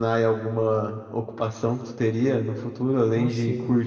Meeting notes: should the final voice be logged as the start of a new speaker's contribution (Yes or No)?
No